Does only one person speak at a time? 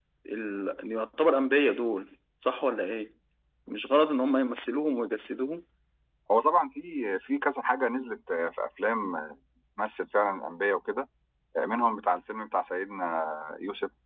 Yes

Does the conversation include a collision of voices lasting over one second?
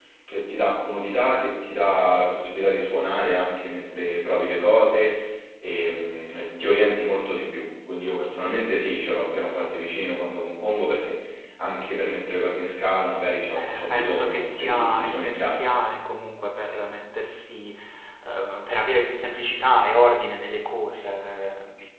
Yes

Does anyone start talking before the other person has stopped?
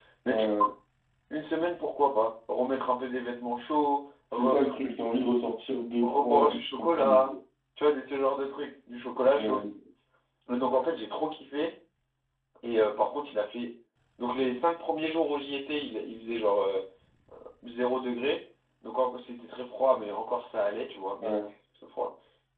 Yes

